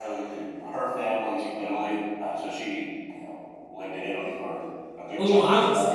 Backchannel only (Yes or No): No